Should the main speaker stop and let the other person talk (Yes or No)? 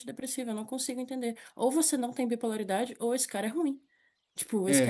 Yes